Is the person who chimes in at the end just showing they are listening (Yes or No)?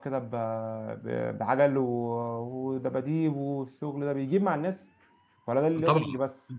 No